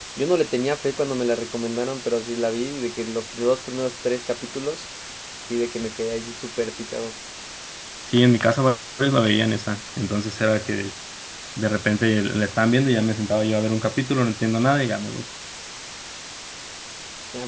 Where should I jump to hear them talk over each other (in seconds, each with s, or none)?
none